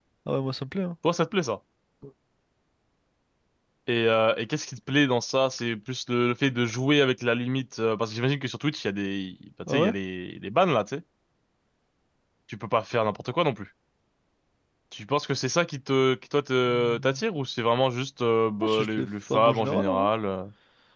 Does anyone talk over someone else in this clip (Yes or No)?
Yes